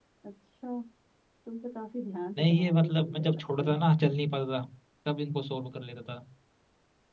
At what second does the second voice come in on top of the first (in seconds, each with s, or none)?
2.4 s